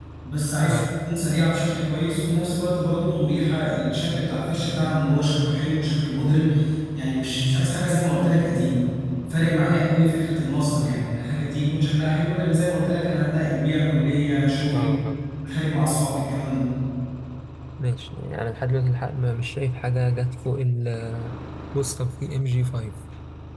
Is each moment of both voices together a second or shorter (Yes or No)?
Yes